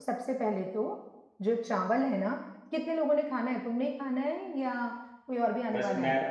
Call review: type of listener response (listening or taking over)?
taking over